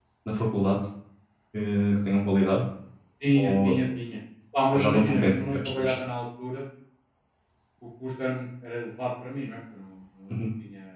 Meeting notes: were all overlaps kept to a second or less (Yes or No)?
No